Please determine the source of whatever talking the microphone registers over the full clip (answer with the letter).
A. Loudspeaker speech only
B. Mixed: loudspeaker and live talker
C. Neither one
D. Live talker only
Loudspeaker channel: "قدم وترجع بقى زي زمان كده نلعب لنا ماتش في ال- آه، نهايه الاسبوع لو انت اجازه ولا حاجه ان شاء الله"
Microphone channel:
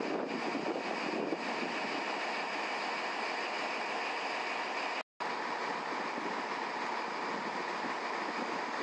C